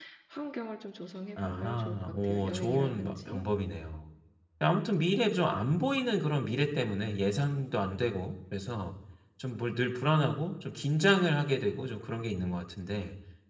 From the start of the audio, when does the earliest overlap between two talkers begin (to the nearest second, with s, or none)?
1 s